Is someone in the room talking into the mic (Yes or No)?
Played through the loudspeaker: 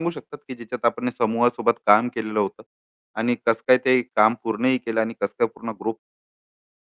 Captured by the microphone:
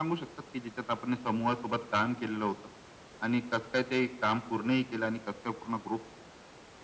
No